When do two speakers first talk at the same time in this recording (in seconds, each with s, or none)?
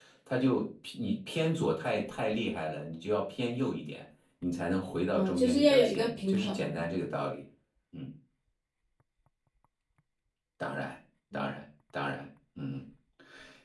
5.1 s